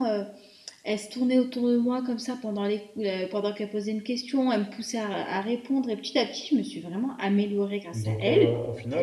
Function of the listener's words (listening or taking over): taking over